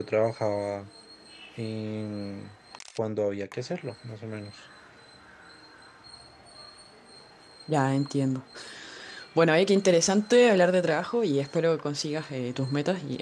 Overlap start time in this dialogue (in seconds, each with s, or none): none